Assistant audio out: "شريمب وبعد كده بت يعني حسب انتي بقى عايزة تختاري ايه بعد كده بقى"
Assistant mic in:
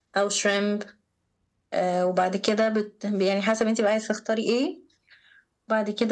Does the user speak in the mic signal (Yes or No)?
No